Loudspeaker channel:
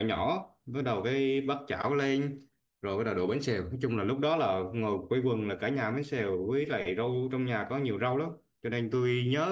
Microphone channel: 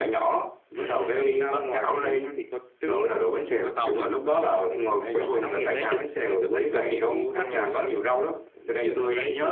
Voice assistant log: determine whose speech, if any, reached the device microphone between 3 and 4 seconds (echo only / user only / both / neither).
both